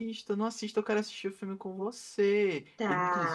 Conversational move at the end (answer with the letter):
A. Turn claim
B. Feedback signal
B